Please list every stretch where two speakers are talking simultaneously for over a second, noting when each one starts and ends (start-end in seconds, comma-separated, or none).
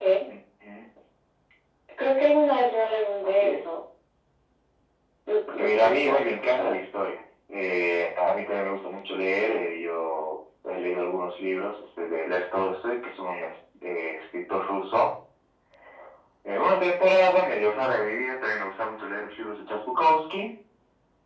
5.5-6.8